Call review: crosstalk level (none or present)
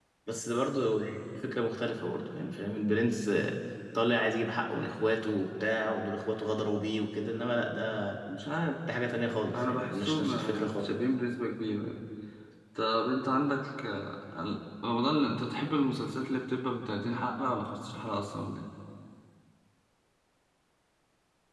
present